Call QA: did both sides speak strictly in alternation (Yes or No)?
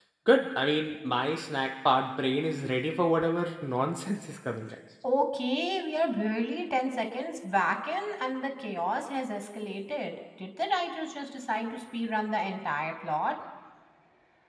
Yes